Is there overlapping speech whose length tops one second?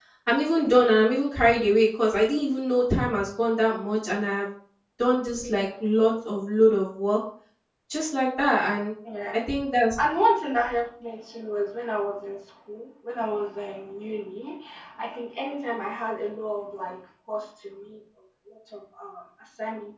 No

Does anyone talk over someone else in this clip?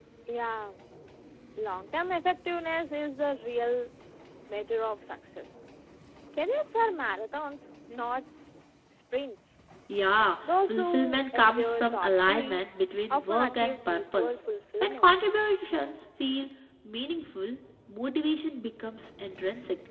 Yes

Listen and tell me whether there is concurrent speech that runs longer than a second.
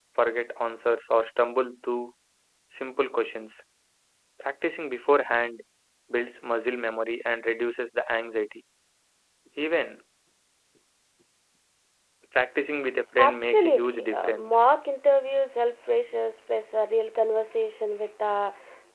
Yes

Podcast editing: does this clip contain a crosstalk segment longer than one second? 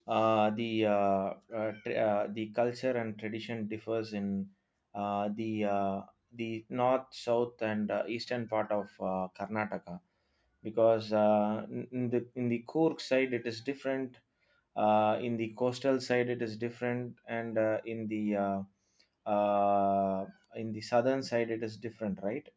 No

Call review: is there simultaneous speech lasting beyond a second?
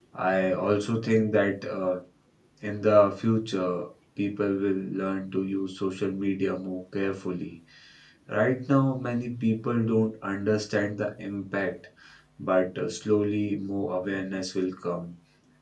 No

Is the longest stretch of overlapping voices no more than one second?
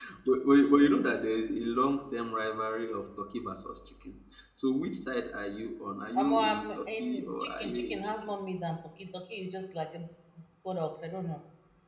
No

